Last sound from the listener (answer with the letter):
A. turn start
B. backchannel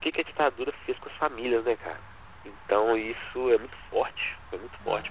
A